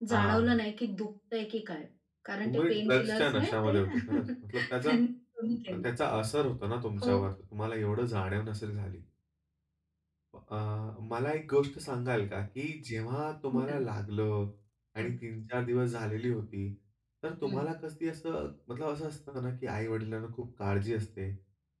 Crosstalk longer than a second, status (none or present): present